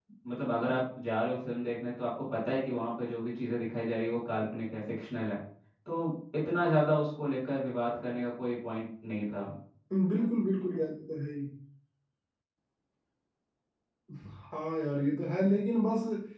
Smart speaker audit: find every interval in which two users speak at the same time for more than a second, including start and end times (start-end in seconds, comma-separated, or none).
none